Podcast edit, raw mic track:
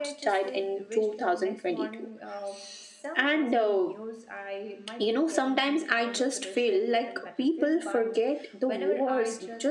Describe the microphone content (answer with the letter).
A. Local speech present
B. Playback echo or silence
A